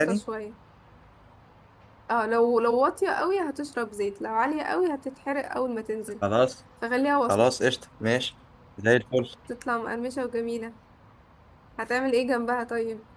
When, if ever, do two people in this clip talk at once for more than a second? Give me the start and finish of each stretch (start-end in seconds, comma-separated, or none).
none